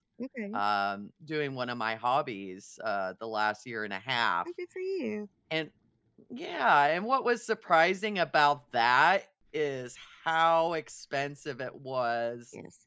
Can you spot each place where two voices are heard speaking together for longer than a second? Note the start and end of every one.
none

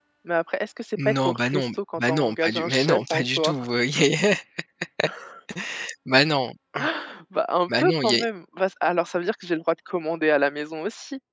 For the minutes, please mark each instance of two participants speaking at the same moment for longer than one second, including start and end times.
1.1-3.5

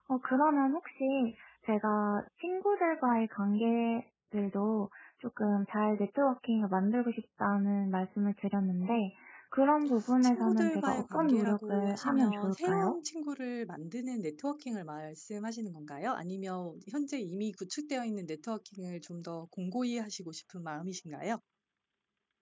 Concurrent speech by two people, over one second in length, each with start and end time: 10.2-12.9

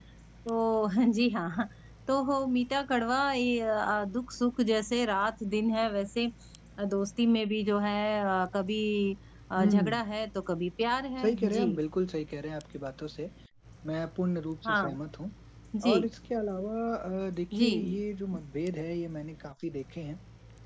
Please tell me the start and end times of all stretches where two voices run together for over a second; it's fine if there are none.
none

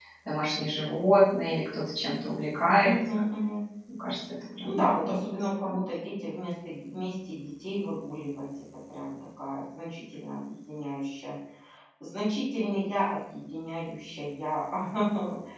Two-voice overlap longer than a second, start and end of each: 4.6-5.8

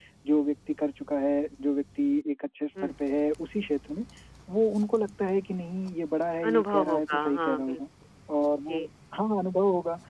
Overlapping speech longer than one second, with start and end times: 6.5-7.8

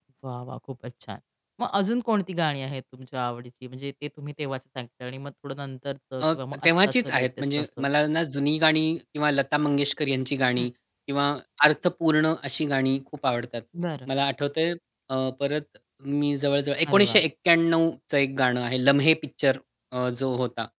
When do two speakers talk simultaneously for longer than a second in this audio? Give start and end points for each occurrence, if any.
6.2-7.8

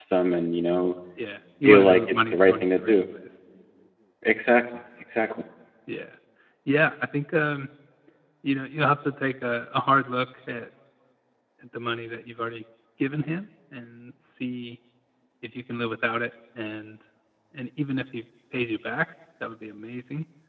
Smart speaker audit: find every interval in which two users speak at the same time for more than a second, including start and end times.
1.6-3.0

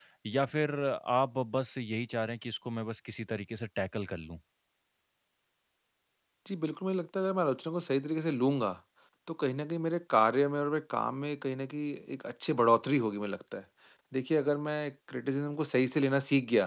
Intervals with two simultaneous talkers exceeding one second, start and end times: none

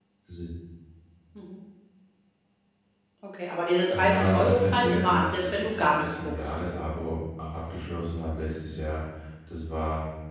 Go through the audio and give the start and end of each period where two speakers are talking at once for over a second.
3.9-6.5

